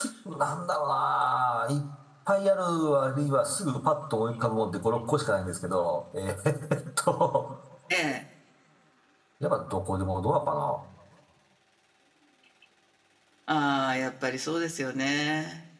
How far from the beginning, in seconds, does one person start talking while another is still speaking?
none

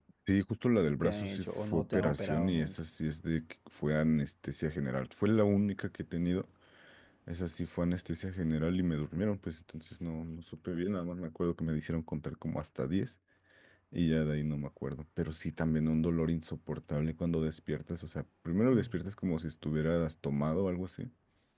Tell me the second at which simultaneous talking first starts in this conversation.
1.0 s

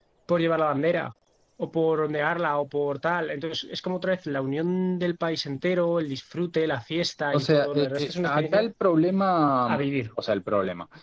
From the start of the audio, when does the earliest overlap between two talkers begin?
7.3 s

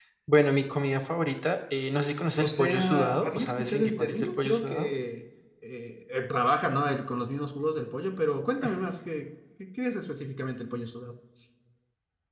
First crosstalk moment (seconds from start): 2.2 s

